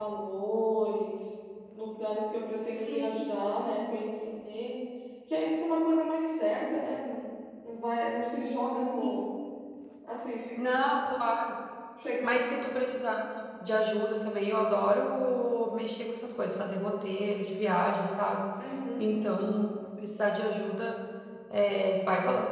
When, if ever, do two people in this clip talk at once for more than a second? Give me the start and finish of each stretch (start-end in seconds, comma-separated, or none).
none